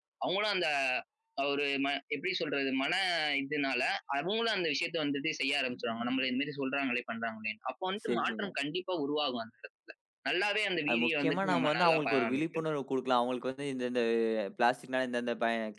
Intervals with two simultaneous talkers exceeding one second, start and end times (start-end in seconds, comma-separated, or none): 10.9-12.6